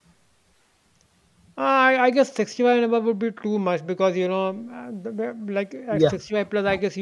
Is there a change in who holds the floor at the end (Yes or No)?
No